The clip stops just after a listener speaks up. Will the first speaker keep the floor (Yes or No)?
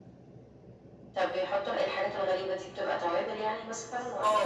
No